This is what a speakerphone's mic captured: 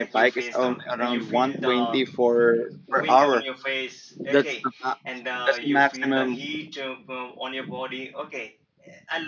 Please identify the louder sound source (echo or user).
user